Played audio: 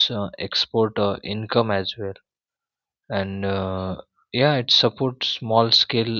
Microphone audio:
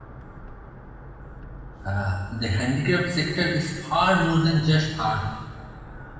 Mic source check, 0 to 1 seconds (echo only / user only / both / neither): neither